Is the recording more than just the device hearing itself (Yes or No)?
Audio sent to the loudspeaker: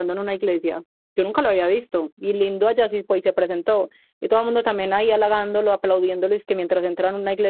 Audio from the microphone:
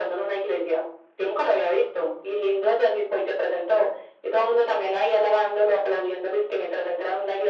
No